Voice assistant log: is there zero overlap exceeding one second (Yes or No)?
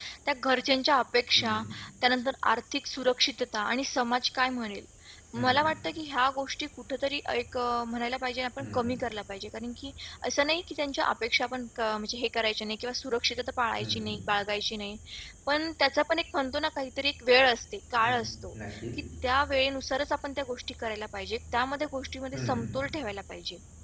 Yes